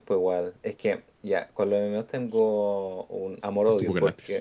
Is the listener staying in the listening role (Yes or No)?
Yes